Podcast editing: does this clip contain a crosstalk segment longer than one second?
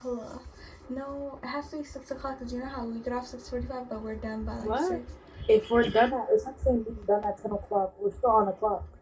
No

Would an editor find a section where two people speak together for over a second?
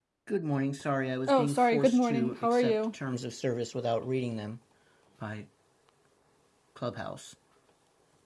Yes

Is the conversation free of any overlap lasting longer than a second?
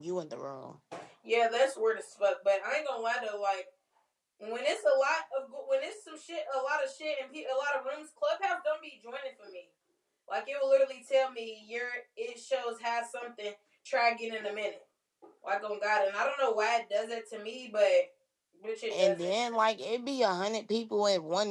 Yes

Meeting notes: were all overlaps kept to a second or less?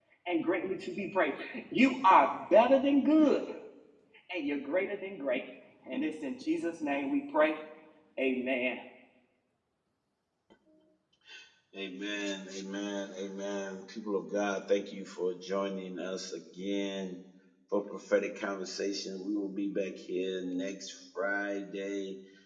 Yes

